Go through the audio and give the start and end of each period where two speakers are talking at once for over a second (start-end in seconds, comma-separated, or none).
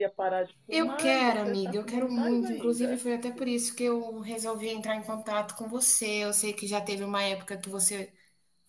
0.7-3.0